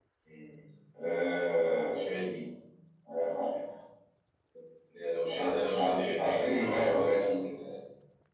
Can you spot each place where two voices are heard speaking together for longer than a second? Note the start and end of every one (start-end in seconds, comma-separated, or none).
5.8-7.4